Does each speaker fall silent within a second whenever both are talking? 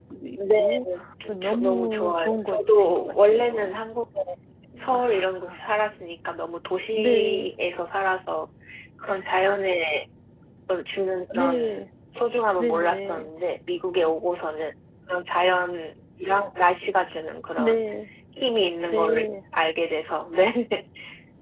No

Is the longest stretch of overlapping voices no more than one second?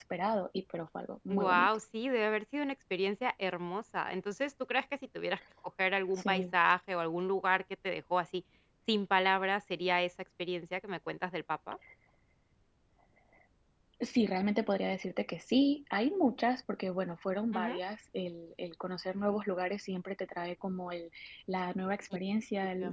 Yes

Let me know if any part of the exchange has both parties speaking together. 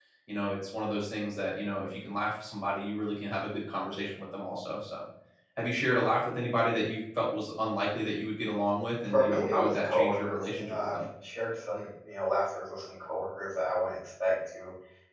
Yes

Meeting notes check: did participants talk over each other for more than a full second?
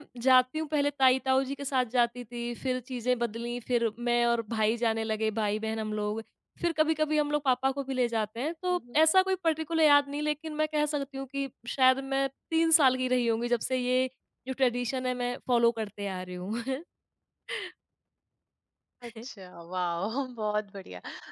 No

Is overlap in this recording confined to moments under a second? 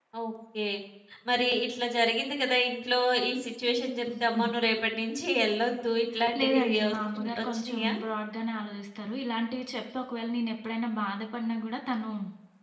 No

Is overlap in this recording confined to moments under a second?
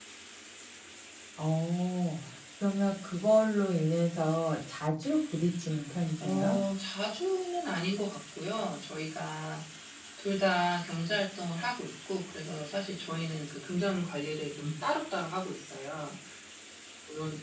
Yes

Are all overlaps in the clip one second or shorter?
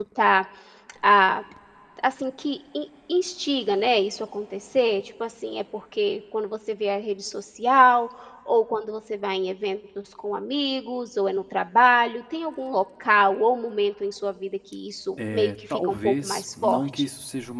No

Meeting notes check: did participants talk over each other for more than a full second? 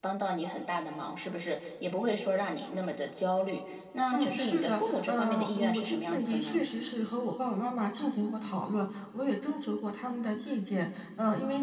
Yes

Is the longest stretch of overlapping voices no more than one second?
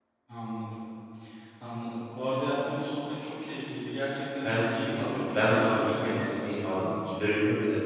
No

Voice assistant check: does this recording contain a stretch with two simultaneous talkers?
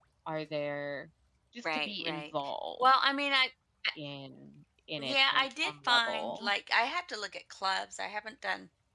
Yes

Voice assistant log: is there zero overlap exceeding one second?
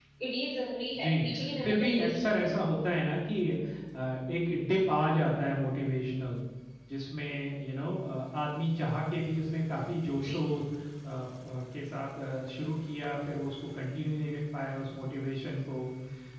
No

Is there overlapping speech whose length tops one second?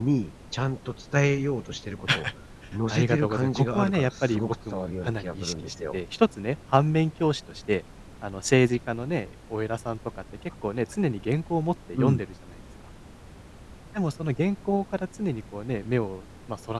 Yes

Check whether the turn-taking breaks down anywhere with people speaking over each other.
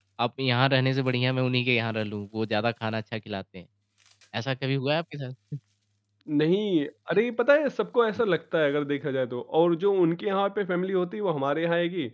No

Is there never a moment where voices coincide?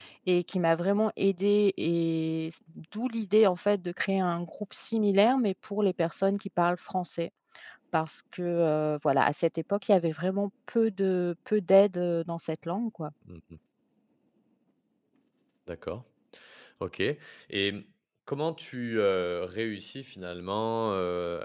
Yes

